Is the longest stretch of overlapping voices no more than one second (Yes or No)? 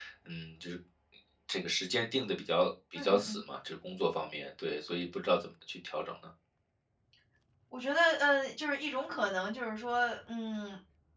Yes